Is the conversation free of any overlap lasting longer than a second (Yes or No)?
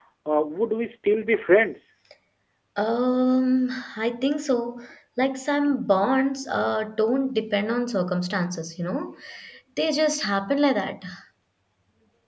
Yes